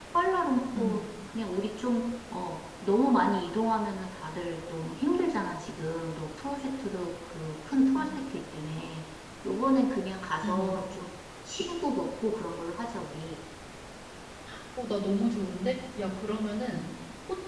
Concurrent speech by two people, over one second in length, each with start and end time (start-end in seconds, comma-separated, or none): none